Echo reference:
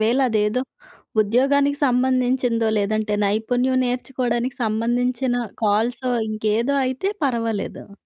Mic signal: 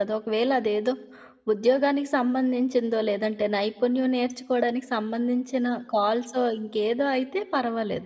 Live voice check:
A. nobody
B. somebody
A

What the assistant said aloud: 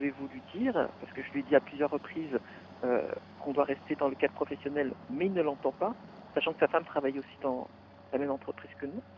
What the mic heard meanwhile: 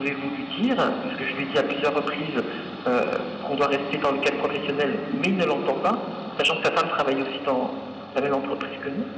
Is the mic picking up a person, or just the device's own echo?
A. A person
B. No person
A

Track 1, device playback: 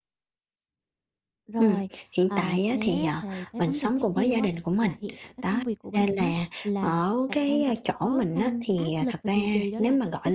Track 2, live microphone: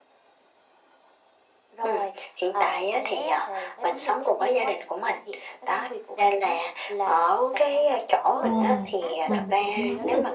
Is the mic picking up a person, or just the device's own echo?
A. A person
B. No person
A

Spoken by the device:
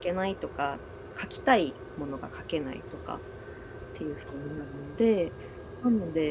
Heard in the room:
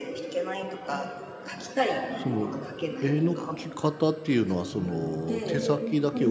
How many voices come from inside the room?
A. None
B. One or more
B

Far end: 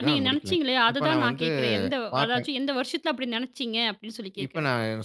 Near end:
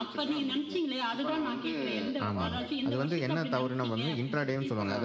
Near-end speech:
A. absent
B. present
B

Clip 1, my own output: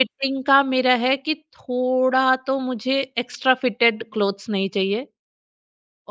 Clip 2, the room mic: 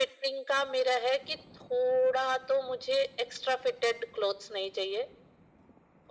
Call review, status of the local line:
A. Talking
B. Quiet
B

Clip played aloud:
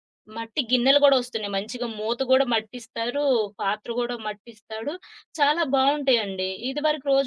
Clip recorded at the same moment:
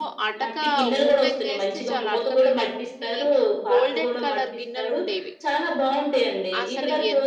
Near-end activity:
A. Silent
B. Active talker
B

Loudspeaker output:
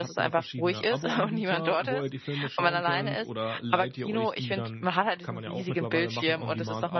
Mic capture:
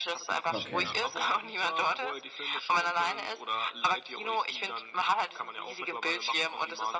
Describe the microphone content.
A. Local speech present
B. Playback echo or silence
A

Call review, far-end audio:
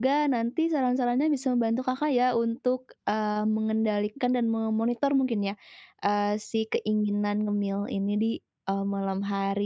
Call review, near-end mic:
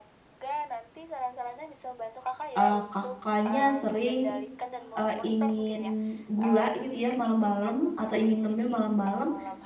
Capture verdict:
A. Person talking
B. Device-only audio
A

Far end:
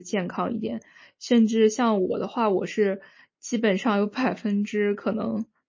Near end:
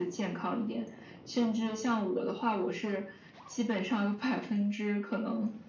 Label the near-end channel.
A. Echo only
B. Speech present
A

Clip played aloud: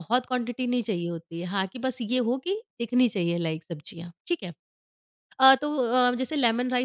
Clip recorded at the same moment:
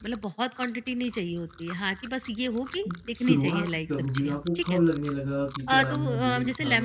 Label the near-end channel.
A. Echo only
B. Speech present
B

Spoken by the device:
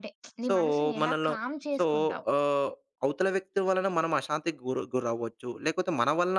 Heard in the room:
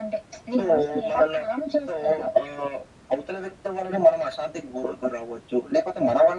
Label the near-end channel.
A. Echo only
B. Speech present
A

